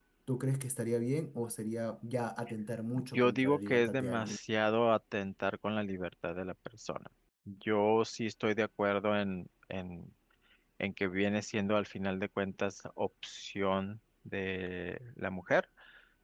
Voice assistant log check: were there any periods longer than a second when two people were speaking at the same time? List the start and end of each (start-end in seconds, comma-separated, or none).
3.1-4.4